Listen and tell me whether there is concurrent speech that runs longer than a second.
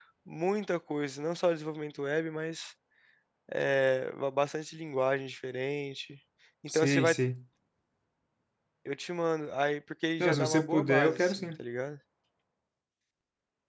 Yes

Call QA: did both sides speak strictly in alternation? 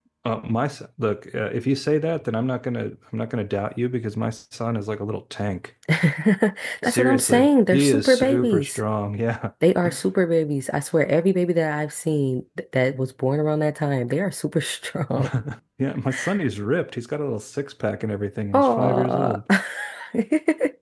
No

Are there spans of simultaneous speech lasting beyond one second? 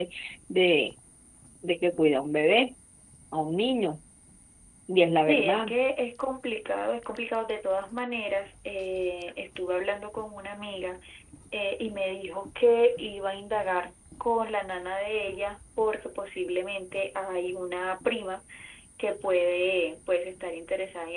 No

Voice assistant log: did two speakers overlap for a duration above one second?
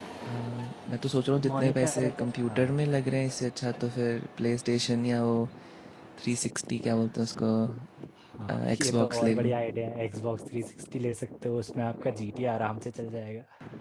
Yes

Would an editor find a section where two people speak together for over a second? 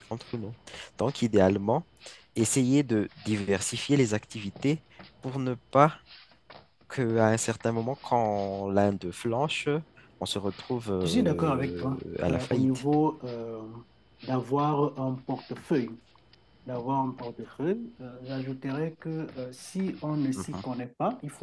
Yes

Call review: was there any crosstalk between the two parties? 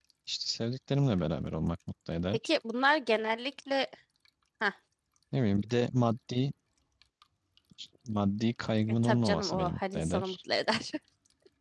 Yes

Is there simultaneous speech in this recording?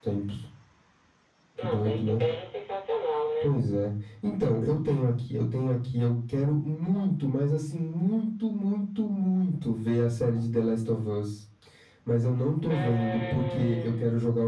Yes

